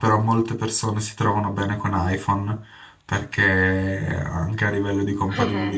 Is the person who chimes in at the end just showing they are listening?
Yes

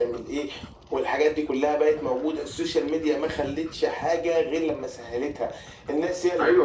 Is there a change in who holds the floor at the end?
Yes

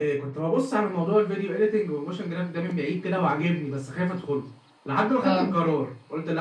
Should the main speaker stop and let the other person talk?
No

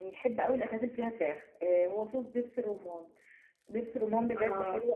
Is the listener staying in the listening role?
Yes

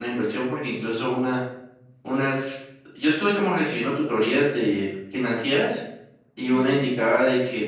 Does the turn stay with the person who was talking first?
Yes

